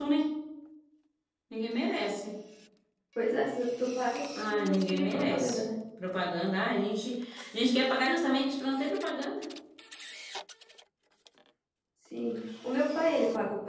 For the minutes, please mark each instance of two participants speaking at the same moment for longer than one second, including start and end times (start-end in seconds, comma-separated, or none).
4.3-5.6